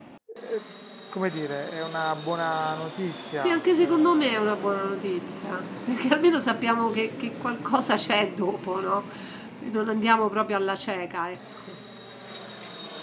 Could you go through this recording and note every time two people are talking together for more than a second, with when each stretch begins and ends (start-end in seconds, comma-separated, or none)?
3.4-4.7